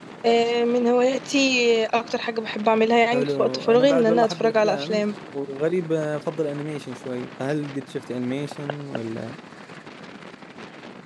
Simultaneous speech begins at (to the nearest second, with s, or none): 3 s